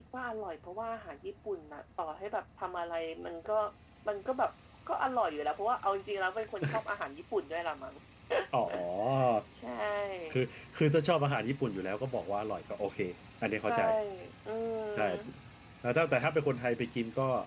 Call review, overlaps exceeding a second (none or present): none